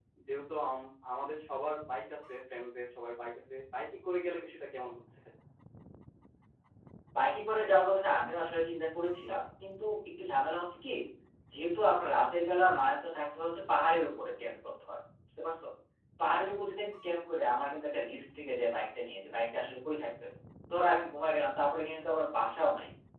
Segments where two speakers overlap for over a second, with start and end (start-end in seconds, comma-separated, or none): none